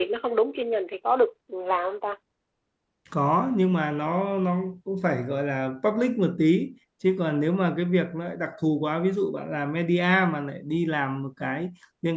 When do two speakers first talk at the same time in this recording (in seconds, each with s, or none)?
none